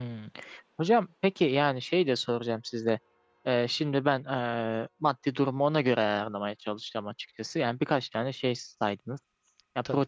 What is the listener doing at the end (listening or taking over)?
listening